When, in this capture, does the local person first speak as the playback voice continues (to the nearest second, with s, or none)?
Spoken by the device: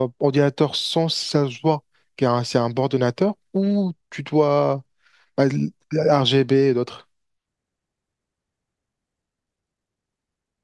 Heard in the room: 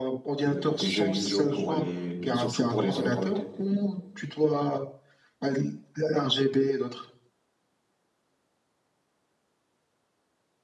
1 s